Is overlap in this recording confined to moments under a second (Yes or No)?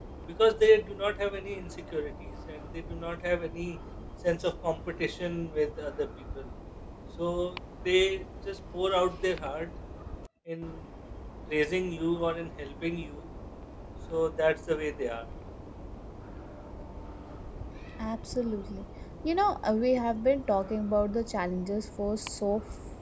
Yes